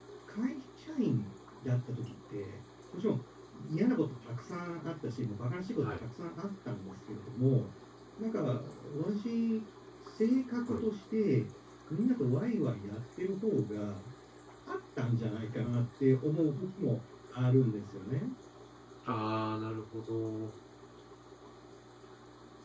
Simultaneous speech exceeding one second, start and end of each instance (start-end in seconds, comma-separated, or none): none